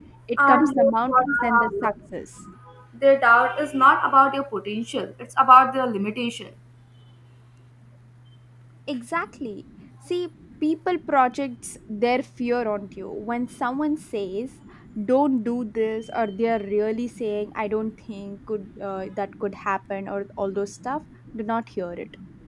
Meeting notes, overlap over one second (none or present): present